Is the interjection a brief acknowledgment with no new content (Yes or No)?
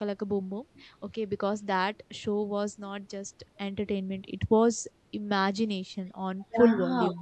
No